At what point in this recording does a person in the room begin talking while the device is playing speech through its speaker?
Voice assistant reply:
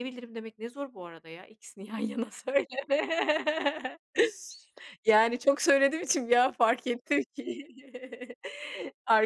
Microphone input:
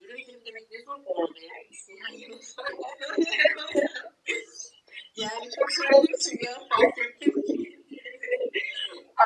none

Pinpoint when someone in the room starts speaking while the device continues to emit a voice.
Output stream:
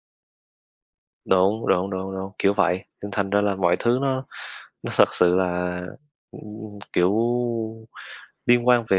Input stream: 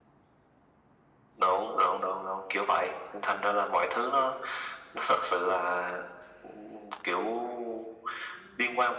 none

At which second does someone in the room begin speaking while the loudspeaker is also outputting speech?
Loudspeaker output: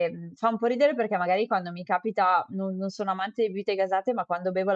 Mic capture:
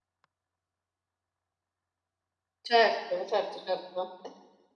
2.7 s

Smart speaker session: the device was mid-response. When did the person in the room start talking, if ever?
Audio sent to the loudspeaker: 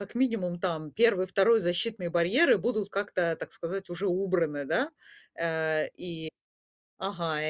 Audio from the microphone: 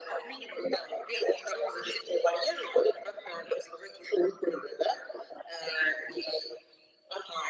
none

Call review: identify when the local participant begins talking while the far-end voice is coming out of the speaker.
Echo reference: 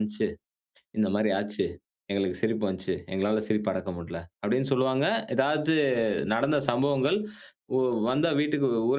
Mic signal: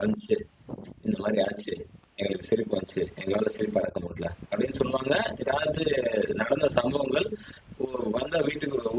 none

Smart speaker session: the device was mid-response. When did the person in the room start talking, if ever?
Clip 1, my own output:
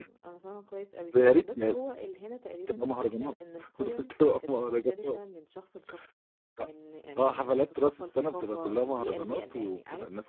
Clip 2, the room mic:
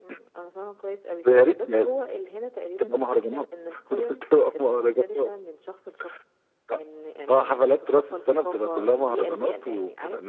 none

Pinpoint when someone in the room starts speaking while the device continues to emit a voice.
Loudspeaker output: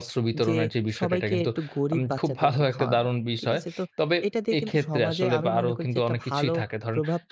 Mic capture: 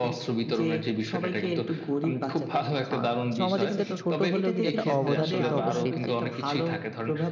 3.4 s

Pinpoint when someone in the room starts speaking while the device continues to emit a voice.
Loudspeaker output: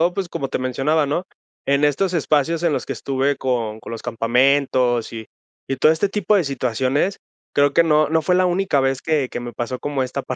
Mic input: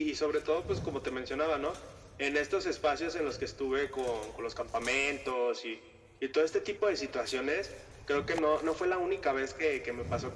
none

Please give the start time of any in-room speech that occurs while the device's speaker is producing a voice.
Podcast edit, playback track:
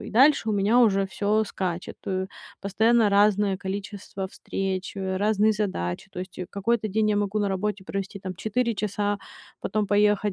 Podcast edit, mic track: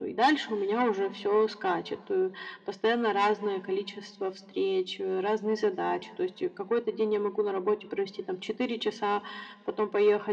none

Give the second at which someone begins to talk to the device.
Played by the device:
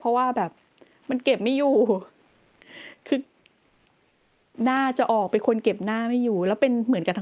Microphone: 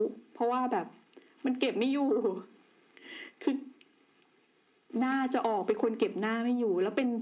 none

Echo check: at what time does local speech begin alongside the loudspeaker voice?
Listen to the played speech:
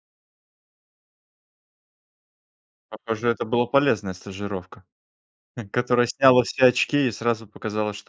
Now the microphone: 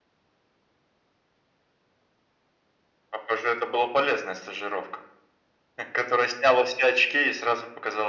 none

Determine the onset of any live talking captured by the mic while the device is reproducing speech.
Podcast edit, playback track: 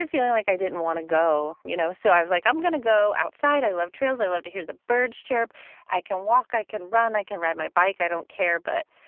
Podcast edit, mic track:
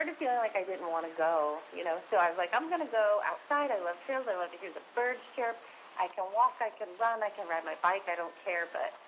none

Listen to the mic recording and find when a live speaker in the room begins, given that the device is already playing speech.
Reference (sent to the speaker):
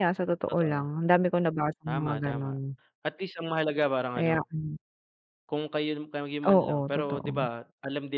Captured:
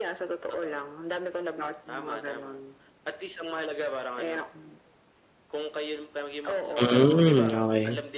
6.8 s

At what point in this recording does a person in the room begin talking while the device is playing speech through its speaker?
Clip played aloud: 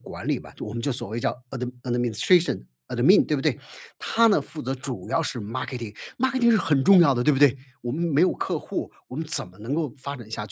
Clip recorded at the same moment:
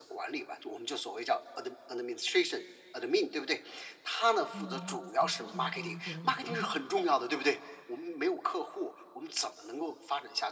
4.5 s

